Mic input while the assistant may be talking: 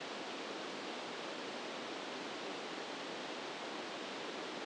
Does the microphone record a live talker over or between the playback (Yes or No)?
No